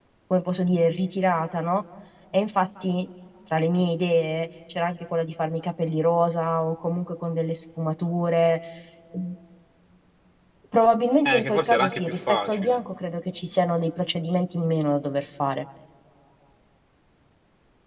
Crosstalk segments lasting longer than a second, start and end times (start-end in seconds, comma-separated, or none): 11.2-12.8